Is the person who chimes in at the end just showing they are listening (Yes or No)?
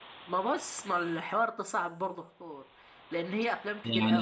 No